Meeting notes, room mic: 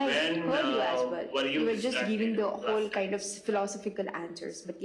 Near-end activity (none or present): none